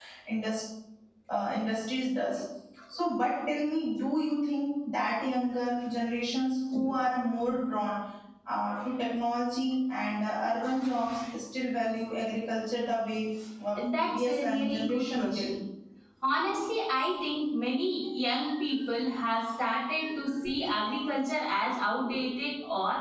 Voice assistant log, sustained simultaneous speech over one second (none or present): present